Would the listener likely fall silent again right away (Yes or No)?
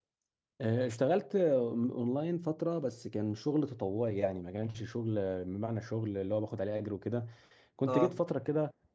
Yes